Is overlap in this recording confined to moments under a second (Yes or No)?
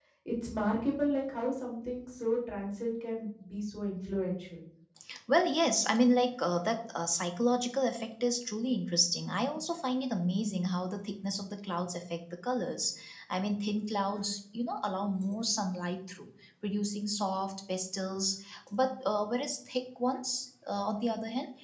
Yes